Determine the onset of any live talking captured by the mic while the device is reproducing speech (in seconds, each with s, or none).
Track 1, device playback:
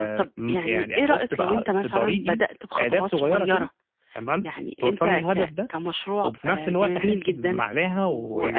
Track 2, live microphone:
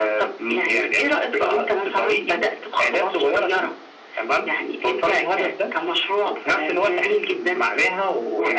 none